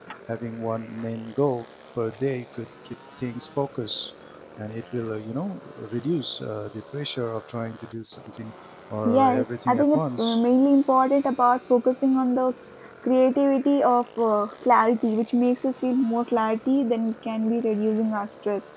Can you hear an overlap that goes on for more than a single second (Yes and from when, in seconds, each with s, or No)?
Yes, from 9.1 s